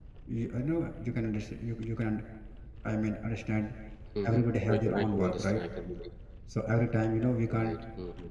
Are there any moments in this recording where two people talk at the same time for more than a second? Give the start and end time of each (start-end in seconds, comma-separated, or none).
4.2-5.6